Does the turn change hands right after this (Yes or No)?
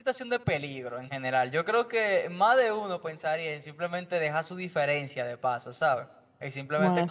No